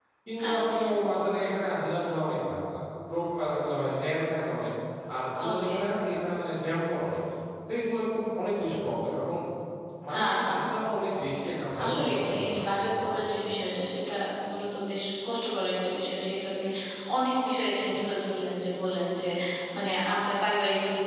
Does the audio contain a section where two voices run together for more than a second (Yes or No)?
Yes